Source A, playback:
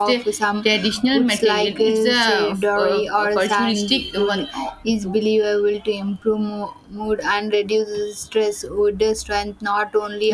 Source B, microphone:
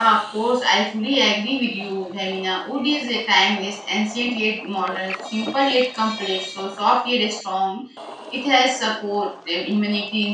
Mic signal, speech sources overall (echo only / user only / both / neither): user only